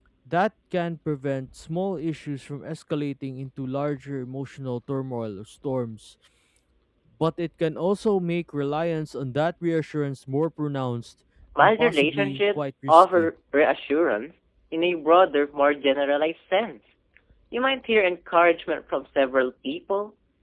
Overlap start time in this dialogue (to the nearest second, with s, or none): 12 s